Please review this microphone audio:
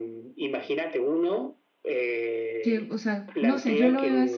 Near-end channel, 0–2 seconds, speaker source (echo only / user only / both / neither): echo only